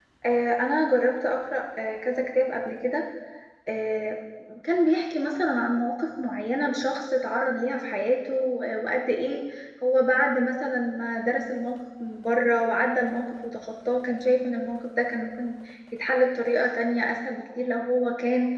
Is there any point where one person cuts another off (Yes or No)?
No